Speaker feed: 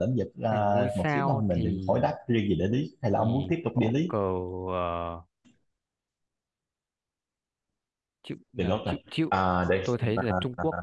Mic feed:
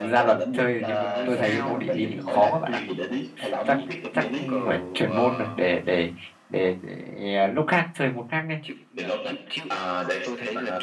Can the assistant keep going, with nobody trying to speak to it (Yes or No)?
No